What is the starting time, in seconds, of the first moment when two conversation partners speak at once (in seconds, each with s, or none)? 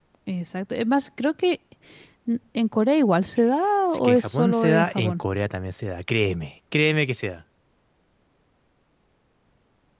3.9 s